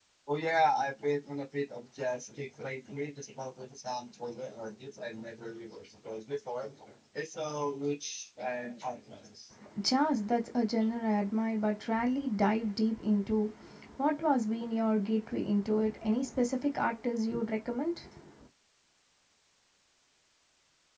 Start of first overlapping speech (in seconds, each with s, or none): none